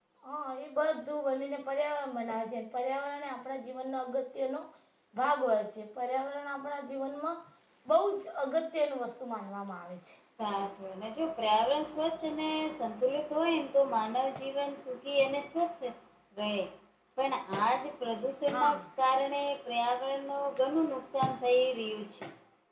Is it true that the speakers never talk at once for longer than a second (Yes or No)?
Yes